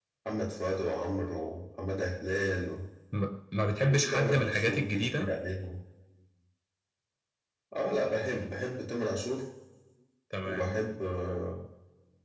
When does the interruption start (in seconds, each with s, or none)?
3.8 s